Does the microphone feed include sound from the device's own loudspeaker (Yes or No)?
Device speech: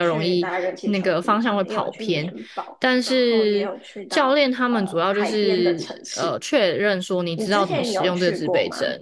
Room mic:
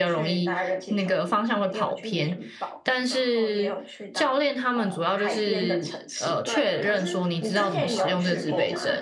Yes